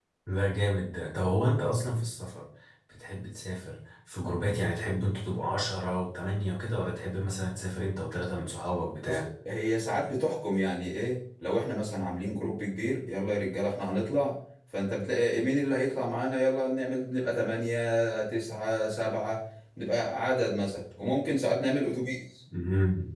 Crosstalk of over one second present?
No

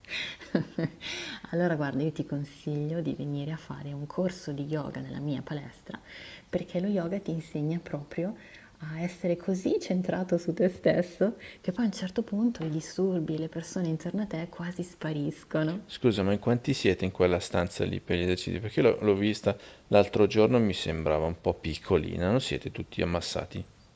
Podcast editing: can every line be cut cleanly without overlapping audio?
Yes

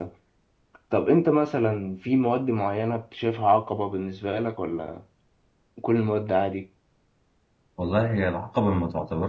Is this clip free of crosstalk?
Yes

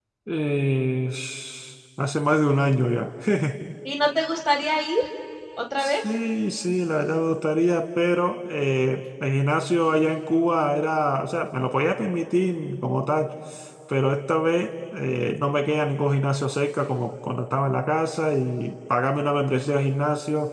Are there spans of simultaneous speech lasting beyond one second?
No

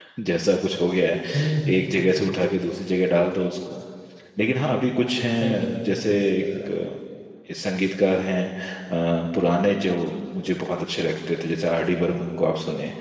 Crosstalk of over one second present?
Yes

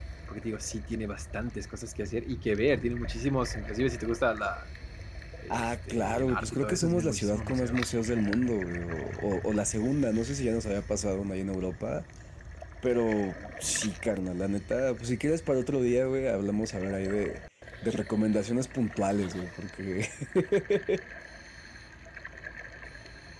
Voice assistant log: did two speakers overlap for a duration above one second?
Yes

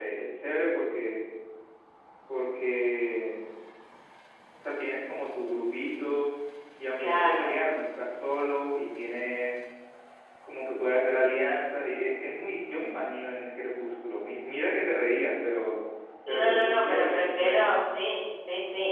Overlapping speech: Yes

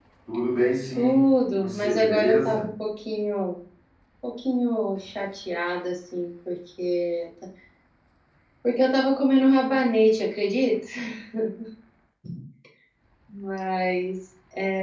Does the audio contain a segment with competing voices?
Yes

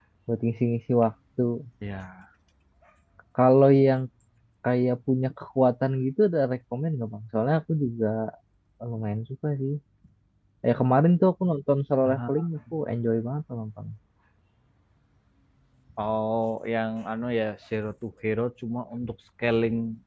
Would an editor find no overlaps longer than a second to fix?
Yes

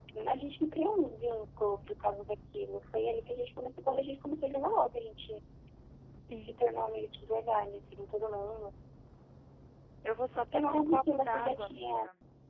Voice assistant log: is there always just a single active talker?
No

